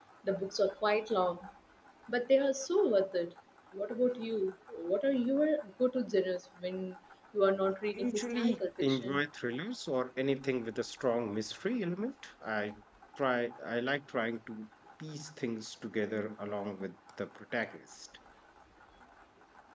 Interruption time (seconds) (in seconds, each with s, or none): 8.0 s